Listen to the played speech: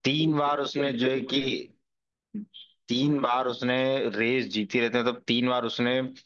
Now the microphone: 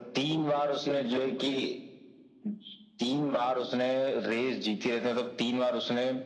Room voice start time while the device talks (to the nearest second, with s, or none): none